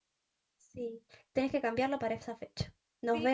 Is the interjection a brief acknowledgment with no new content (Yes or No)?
No